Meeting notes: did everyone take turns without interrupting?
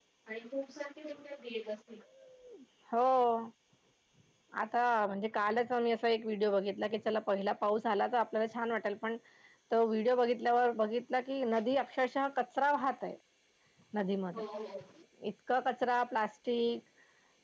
Yes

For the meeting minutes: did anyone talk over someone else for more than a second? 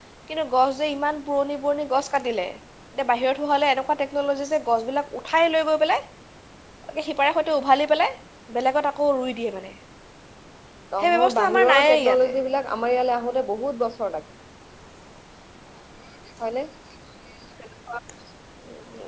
Yes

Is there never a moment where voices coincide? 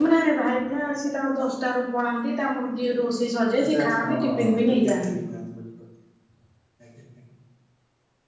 No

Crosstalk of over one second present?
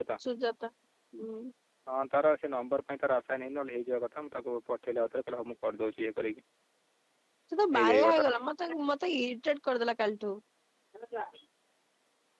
No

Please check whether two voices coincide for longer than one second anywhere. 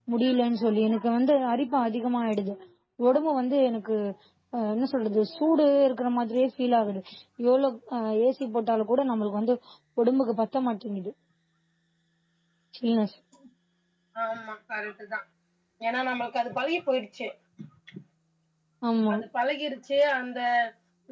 No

